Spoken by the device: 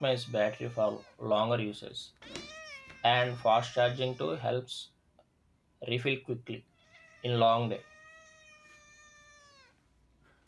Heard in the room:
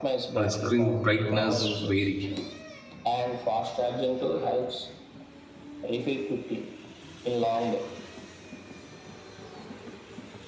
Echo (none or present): present